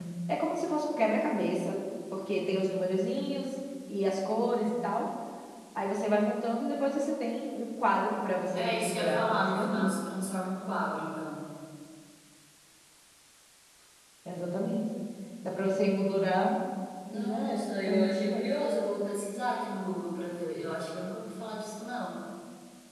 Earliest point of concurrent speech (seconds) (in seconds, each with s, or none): 8.6 s